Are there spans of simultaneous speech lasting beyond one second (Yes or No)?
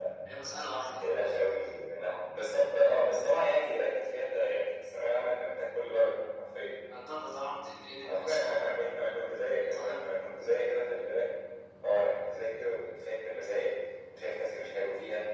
No